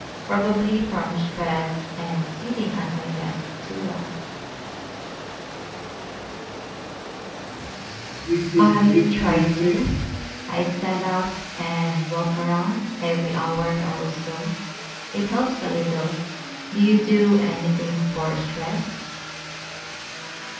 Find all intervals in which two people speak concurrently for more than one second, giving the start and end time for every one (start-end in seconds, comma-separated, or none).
8.6-9.8